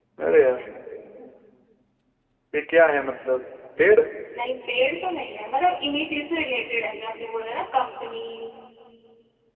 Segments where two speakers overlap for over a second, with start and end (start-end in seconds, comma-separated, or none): none